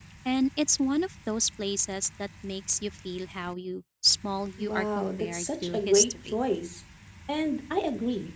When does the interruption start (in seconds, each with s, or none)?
4.6 s